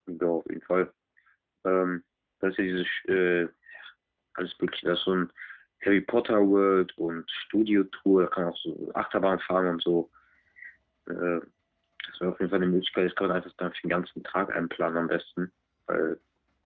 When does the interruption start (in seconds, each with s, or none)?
none